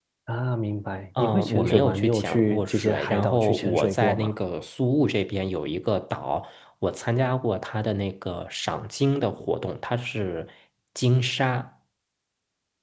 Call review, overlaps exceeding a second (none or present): present